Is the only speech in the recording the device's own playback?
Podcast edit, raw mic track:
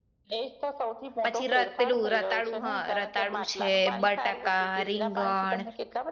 No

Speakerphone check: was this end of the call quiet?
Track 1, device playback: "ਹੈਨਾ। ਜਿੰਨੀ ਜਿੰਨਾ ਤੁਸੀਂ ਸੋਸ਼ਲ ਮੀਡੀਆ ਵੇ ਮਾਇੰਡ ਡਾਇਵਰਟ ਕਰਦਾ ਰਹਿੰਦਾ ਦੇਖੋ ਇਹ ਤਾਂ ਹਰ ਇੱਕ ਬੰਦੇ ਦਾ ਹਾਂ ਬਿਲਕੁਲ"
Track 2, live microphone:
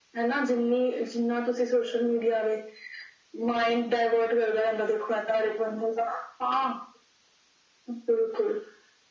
Yes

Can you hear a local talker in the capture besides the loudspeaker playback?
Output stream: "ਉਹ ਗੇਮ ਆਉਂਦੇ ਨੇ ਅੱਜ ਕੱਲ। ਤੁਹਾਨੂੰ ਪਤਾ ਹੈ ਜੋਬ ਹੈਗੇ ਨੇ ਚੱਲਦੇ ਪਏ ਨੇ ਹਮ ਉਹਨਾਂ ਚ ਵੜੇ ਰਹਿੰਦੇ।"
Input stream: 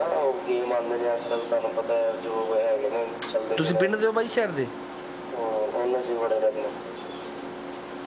Yes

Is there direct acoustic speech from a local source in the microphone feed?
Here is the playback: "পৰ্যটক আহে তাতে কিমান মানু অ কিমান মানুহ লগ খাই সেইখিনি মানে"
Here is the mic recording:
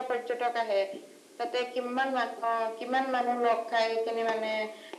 No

